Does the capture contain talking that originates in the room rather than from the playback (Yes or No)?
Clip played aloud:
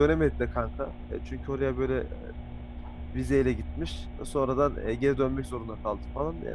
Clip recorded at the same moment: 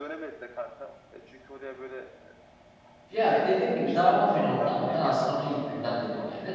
Yes